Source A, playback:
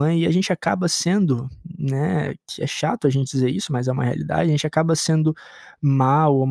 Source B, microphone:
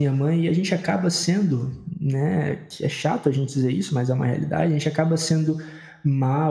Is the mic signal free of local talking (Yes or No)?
Yes